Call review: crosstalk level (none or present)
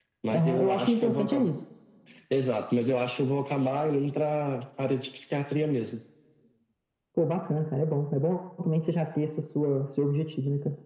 present